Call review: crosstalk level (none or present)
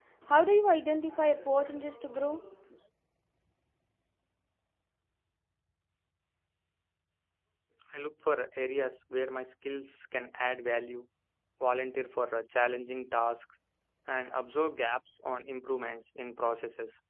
none